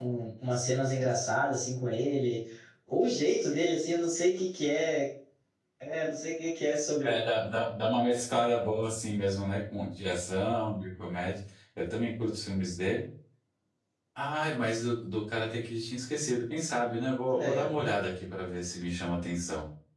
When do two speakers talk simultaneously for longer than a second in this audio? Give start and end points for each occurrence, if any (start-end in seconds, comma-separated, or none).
none